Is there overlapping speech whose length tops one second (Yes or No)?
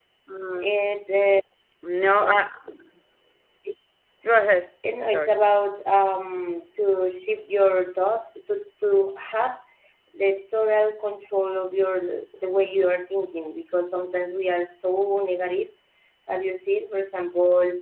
No